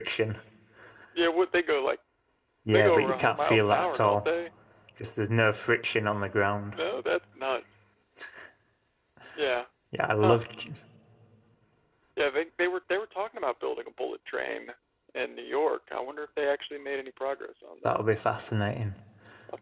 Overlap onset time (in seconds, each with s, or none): 2.7 s